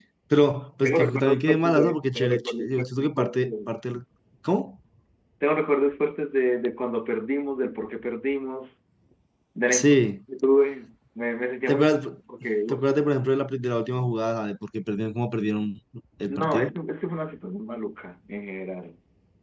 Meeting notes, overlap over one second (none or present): present